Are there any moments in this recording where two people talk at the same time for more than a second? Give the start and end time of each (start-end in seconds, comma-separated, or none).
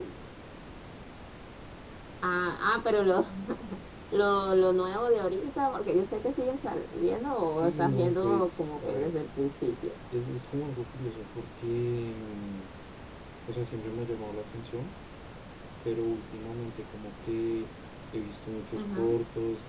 7.5-9.1